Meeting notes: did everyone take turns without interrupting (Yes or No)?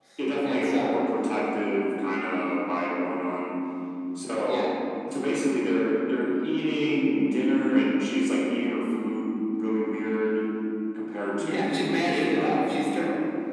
No